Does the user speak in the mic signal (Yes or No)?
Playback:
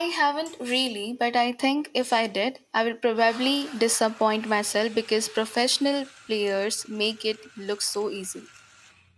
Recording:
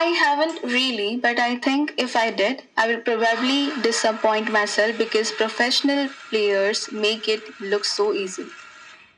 No